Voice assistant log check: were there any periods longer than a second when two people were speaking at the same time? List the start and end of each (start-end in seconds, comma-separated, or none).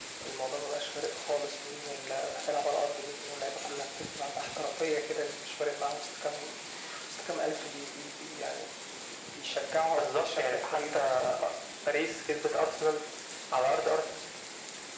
9.9-11.2